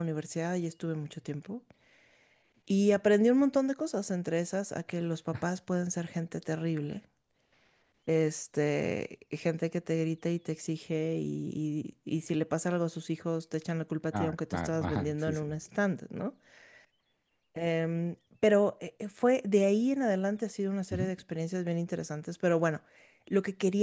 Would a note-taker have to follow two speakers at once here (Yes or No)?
Yes